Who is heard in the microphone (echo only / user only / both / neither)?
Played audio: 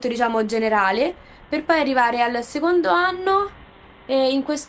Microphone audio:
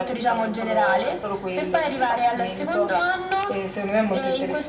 both